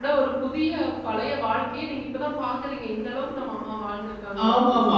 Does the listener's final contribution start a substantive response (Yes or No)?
Yes